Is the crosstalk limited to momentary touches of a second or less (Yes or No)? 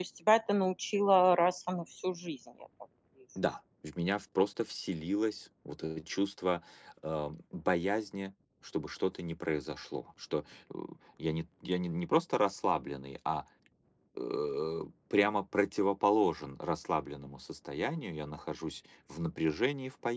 Yes